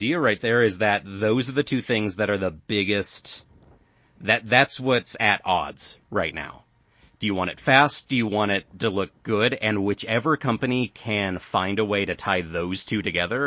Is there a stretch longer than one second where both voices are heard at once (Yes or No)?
No